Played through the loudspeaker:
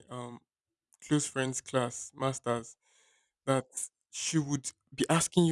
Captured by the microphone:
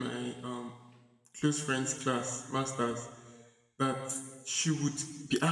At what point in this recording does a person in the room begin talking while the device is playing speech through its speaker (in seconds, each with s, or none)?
none